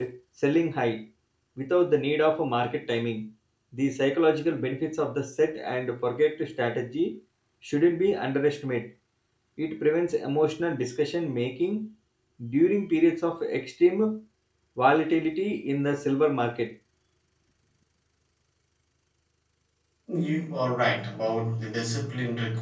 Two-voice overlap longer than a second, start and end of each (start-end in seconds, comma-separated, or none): none